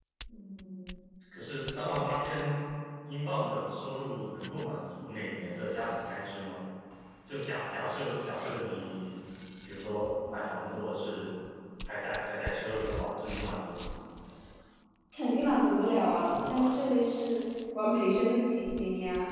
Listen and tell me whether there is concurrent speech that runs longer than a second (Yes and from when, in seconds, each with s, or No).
No